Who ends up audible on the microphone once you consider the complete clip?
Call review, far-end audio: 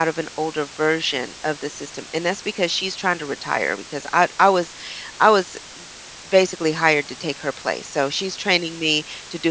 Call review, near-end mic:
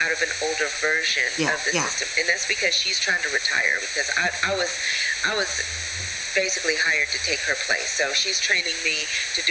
both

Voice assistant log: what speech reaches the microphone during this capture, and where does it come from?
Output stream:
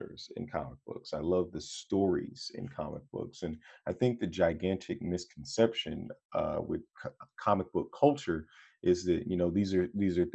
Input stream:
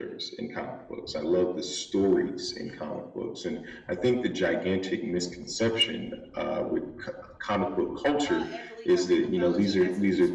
both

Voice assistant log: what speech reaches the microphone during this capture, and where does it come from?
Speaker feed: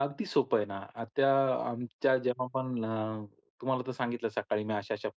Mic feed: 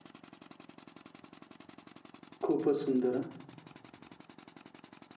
user only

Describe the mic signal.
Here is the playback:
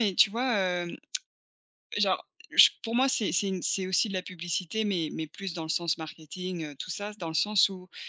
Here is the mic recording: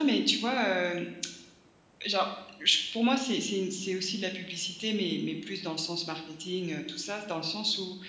echo only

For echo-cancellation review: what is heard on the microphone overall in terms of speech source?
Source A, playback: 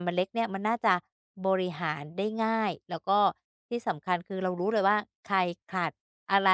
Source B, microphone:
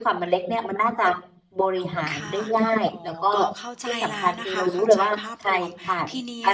both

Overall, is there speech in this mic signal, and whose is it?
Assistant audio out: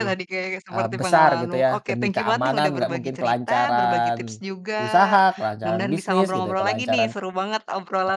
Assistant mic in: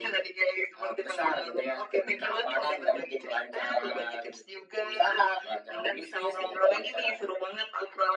echo only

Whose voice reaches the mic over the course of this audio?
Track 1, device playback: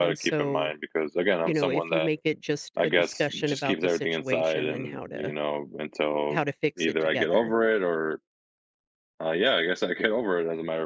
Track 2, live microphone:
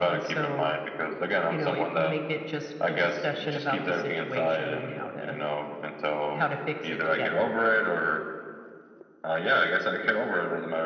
echo only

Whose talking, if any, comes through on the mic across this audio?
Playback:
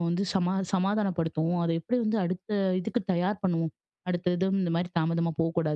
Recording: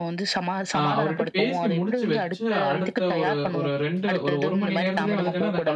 both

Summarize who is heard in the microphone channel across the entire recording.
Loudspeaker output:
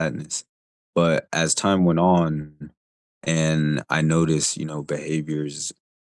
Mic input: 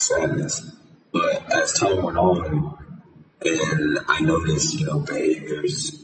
echo only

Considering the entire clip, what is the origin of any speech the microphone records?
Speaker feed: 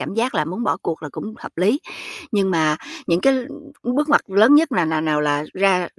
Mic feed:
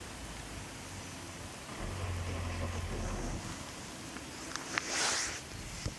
neither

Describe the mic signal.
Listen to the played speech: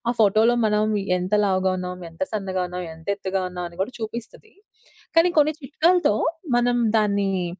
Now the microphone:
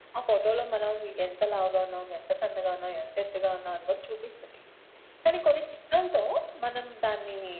echo only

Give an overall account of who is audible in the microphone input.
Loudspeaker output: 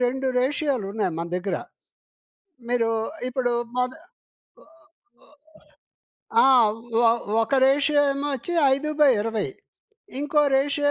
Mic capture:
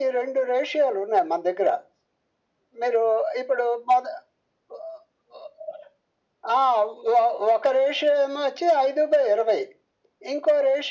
echo only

